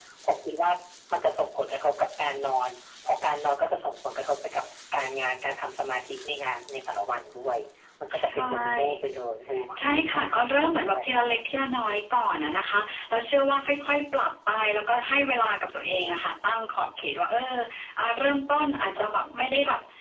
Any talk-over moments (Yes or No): Yes